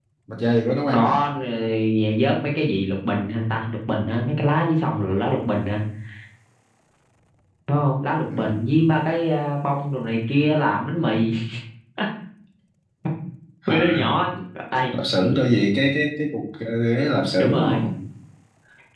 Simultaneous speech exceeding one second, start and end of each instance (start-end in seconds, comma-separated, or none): none